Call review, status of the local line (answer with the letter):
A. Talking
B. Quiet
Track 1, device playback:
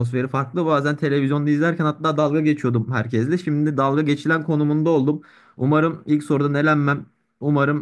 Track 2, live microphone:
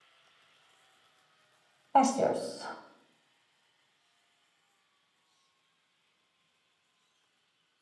A